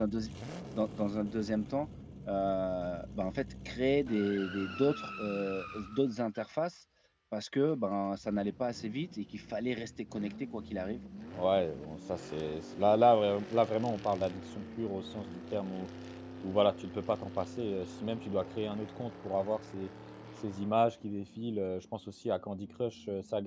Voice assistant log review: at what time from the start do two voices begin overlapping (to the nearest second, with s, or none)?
none